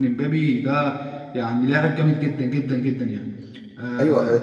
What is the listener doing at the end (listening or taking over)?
taking over